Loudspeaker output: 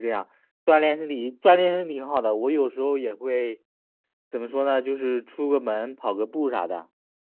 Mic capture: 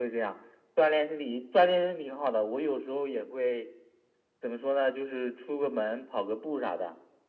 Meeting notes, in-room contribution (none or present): none